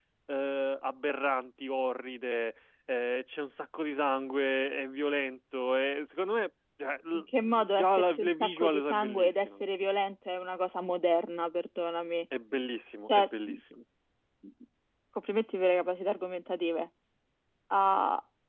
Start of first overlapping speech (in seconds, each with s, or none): 7.1 s